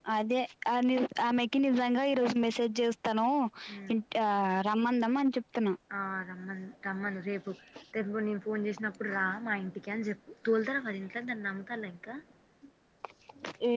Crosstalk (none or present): none